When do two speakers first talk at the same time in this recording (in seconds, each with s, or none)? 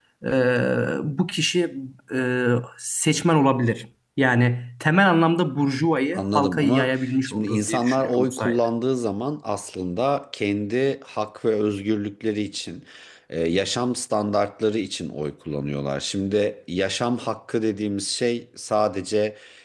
6.1 s